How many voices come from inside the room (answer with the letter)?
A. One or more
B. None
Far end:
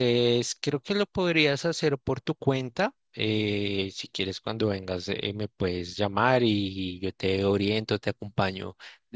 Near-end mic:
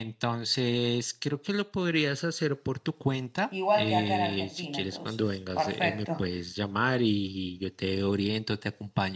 A